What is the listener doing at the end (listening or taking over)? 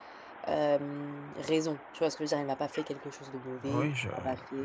taking over